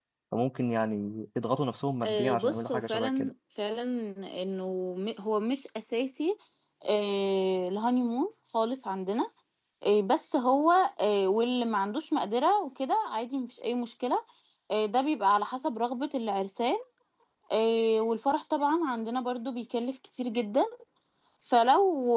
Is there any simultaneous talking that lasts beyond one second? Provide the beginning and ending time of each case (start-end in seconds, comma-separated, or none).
2.0-3.3